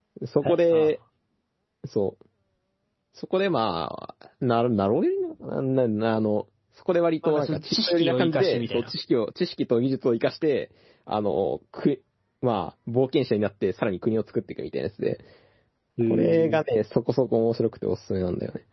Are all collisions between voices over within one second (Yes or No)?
No